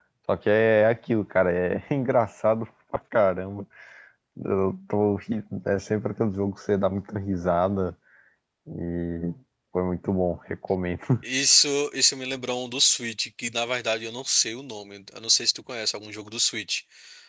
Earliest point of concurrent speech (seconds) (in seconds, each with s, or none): none